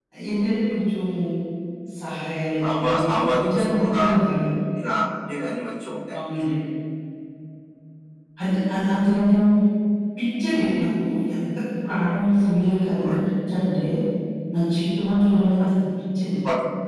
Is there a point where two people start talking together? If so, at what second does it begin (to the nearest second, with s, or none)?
3 s